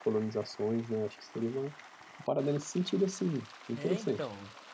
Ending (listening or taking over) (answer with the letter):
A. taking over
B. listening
A